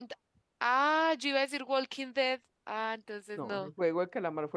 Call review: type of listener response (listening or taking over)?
taking over